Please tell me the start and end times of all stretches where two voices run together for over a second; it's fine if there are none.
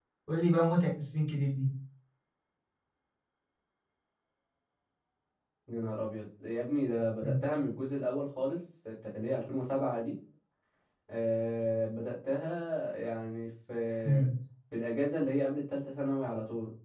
none

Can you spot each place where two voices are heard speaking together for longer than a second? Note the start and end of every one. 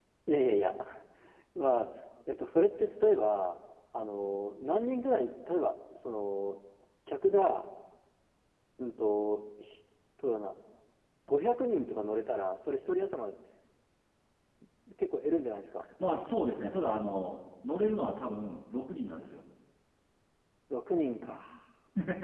none

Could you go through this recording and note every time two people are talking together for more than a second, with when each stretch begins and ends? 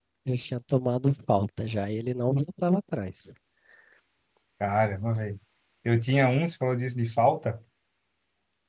none

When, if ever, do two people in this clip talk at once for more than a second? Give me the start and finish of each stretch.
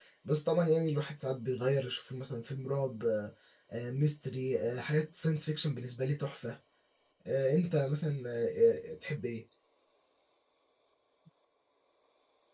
none

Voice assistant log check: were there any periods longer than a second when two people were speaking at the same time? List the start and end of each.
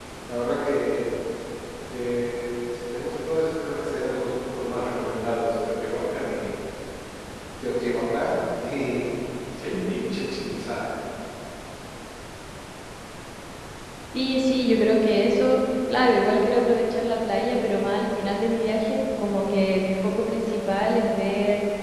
none

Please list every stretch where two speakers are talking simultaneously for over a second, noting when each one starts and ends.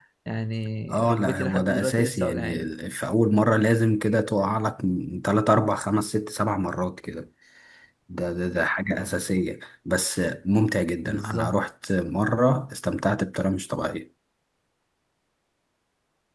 1.0-2.7

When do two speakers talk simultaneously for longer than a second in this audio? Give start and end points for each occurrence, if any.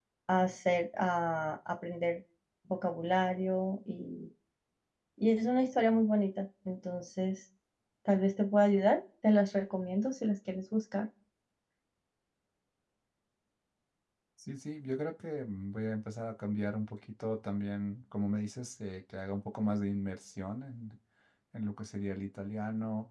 none

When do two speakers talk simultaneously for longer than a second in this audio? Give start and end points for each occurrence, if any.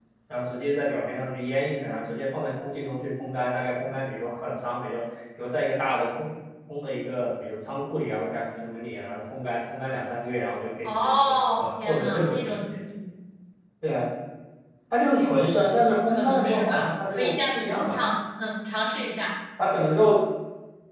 10.8-12.6, 16.0-18.0

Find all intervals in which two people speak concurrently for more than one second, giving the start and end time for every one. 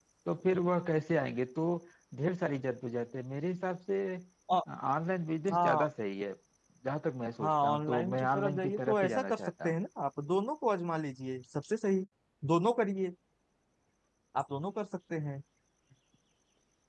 7.4-9.8

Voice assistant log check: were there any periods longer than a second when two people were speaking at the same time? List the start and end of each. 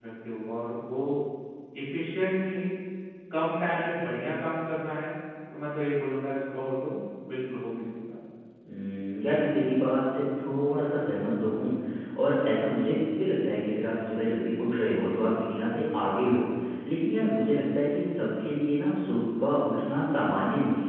none

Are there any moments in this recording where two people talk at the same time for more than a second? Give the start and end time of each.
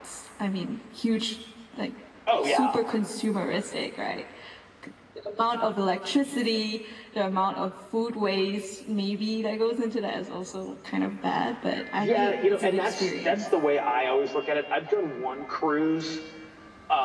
12.0-13.4

